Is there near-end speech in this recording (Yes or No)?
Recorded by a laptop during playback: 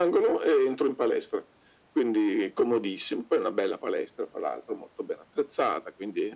No